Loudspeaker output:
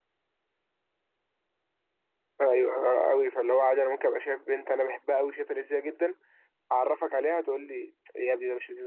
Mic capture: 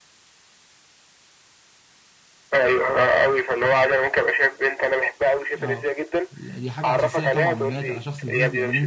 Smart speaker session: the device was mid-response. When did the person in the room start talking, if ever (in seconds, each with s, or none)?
5.6 s